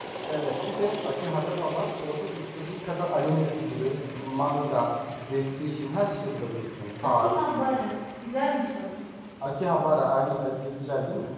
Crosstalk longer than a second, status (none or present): none